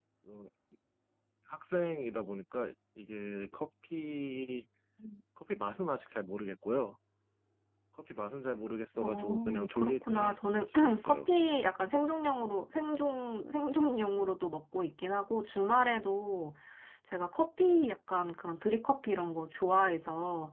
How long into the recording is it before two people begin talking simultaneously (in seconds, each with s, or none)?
9.0 s